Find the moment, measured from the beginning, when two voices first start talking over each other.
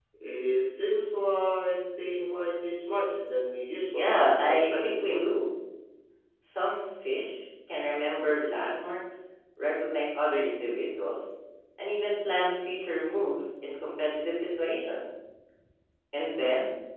3.9 s

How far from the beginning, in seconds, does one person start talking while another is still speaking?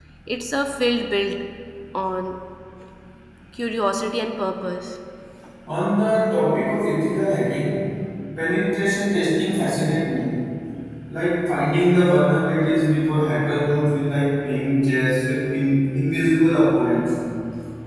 none

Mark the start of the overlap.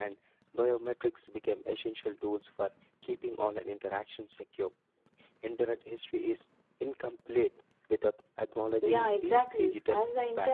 8.8 s

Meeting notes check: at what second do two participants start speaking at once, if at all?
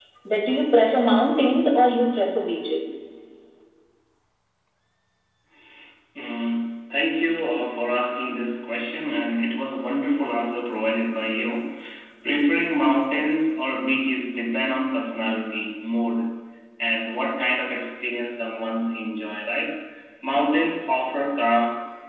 none

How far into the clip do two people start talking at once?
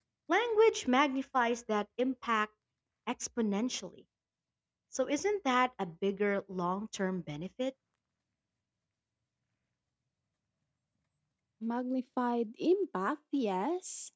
none

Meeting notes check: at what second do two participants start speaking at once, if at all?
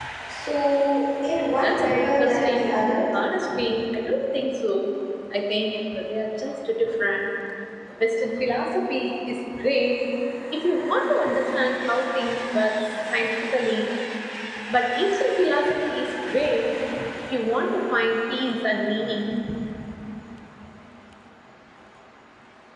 1.6 s

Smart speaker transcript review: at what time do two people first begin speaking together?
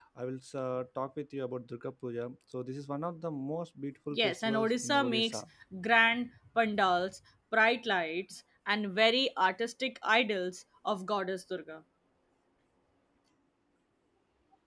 4.1 s

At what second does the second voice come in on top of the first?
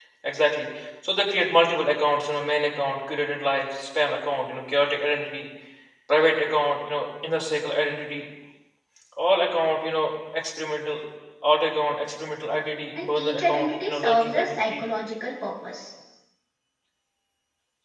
13.0 s

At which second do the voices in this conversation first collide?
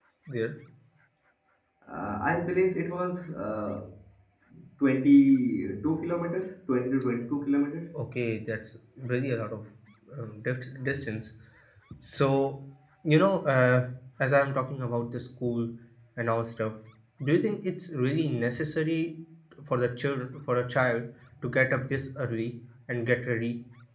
none

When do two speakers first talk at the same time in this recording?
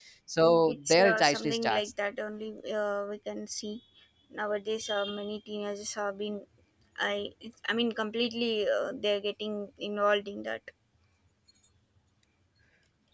0.7 s

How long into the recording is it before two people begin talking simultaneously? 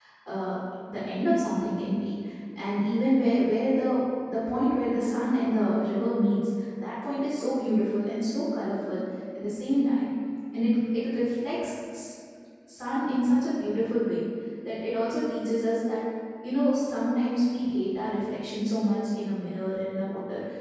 none

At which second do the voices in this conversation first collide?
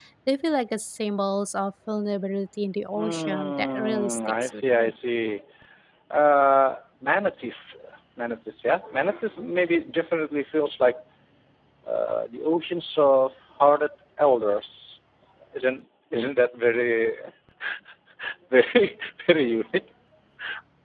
2.9 s

